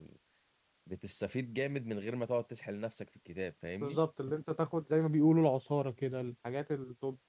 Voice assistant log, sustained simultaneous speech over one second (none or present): none